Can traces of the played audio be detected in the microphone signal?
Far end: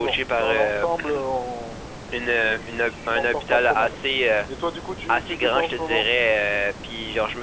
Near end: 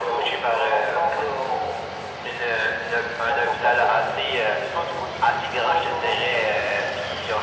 Yes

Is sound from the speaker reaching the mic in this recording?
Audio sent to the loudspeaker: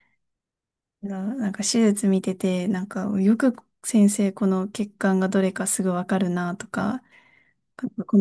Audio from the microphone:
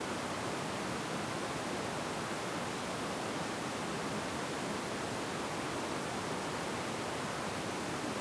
No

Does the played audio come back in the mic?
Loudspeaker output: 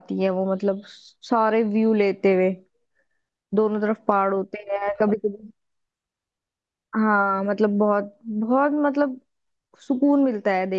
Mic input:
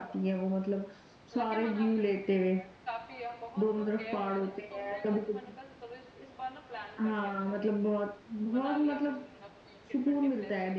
Yes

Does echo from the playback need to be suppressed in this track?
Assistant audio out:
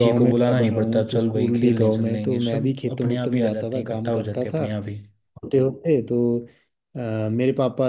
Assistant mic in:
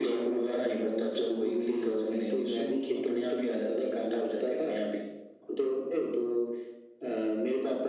Yes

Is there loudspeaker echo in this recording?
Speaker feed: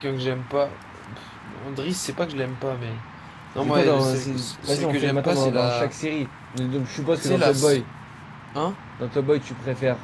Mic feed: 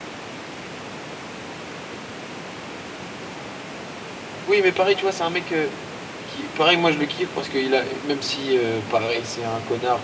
No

